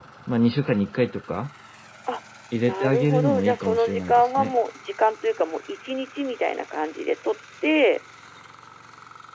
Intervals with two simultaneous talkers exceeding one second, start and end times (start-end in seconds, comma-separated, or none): 2.6-4.5